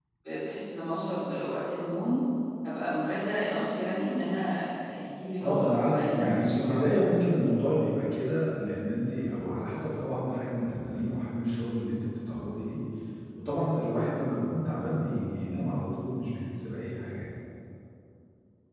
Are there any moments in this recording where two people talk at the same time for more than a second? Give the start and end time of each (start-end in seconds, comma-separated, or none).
5.4-6.8